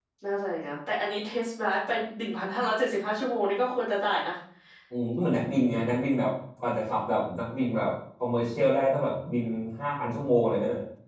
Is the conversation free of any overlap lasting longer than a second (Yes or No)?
Yes